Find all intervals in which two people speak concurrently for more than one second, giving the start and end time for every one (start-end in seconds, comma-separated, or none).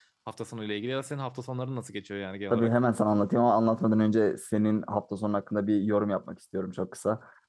none